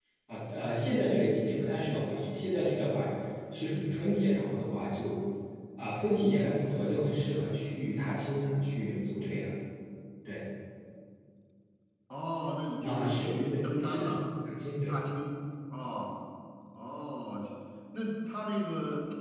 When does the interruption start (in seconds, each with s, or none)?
12.8 s